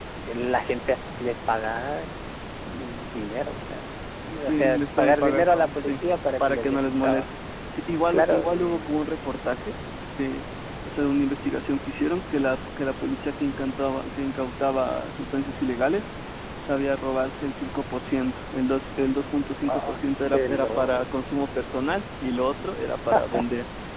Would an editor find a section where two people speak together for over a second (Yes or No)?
Yes